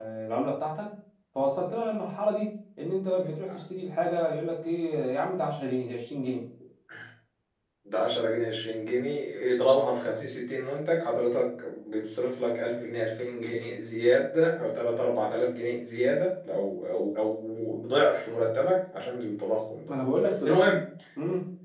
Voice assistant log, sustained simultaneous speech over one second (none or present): none